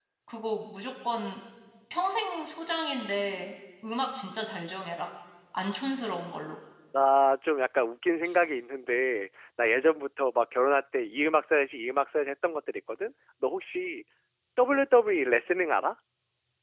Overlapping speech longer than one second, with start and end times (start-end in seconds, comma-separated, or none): none